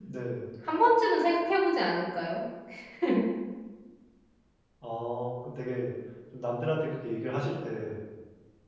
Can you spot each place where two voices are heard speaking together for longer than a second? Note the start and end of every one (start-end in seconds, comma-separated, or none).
none